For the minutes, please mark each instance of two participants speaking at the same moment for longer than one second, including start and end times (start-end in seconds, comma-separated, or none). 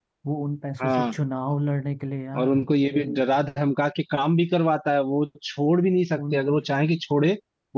none